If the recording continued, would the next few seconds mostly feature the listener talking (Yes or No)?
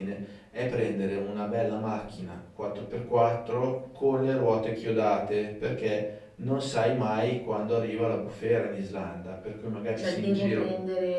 Yes